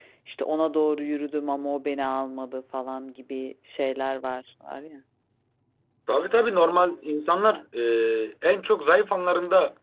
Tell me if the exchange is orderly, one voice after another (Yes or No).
Yes